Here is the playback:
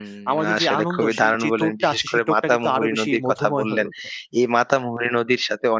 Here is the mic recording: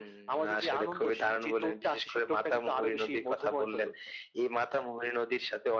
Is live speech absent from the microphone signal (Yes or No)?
Yes